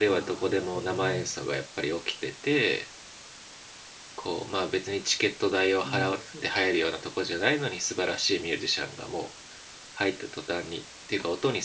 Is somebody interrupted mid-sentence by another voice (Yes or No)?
Yes